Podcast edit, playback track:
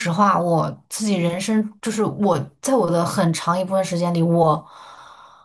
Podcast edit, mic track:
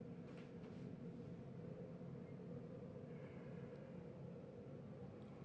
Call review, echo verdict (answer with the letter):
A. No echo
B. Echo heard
A